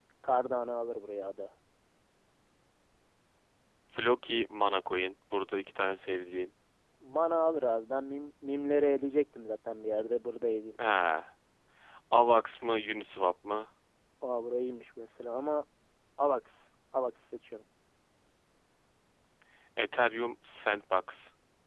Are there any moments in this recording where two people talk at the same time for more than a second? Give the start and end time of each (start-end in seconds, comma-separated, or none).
none